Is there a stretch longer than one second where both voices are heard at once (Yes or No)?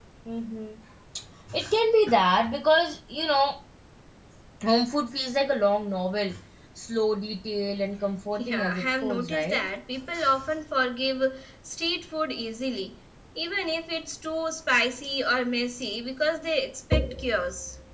Yes